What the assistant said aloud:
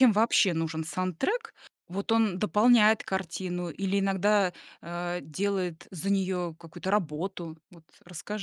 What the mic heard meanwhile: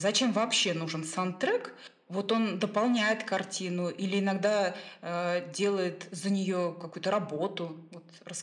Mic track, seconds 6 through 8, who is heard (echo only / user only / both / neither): echo only